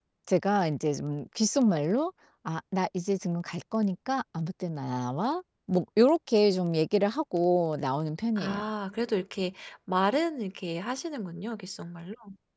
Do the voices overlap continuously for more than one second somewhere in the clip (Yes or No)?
No